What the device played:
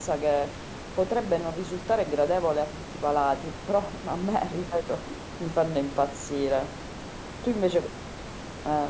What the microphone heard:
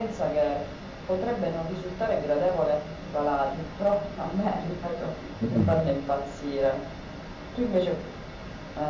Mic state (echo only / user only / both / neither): both